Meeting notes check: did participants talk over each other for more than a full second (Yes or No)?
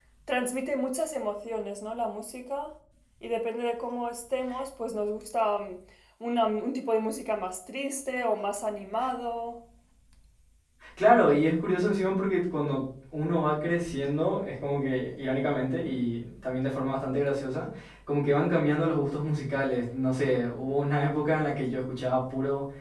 No